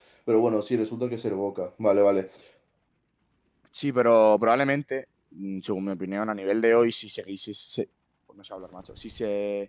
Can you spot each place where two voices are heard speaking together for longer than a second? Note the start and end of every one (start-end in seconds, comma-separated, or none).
none